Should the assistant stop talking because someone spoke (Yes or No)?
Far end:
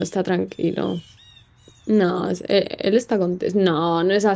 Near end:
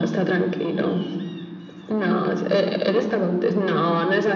No